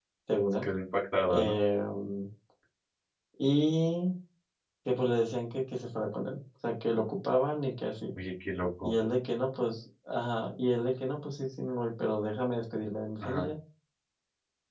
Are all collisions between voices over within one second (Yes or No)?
Yes